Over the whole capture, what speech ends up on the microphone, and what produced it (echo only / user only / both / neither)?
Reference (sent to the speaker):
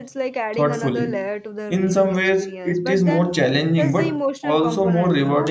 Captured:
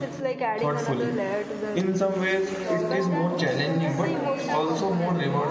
both